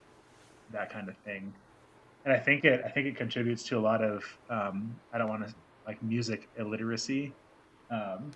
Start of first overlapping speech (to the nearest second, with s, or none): none